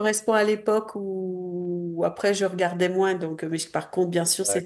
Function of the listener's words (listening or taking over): listening